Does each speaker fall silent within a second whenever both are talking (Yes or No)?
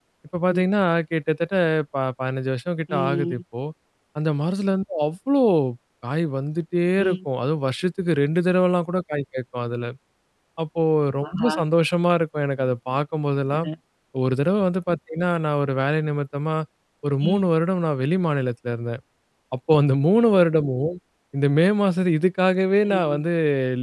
Yes